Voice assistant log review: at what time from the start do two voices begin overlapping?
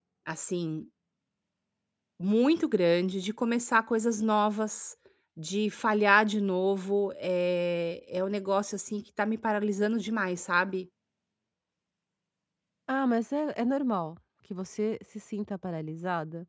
none

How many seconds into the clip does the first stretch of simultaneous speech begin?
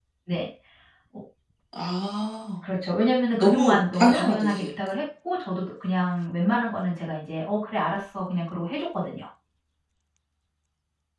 3.4 s

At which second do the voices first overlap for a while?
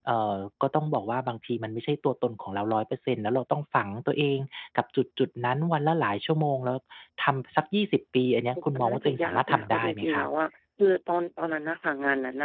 8.7 s

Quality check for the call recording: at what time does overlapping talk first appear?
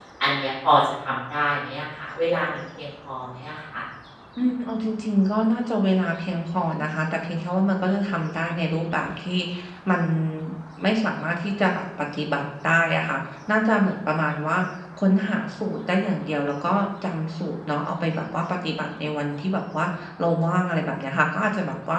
none

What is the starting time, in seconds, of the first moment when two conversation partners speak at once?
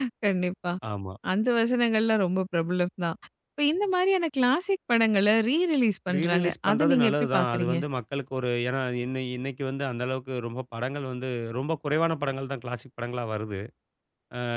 6.1 s

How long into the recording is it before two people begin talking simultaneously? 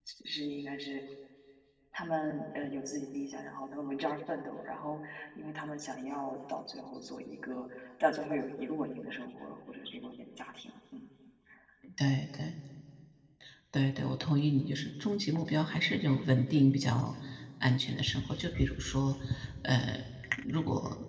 none

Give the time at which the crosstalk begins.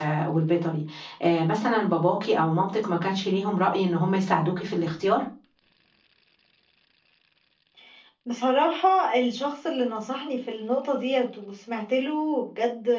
none

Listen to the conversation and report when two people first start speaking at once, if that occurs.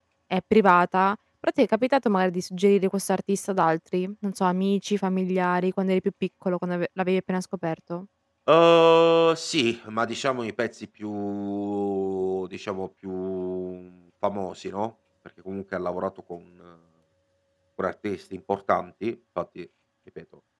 none

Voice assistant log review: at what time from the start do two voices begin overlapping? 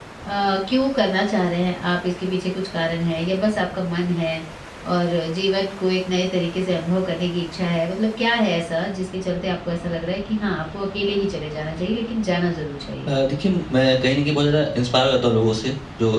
none

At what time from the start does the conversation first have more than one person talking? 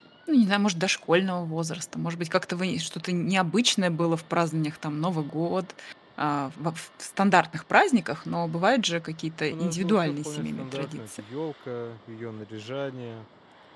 9.5 s

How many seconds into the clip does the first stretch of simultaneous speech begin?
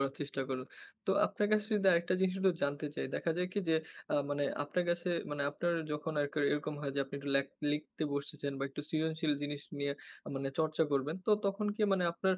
none

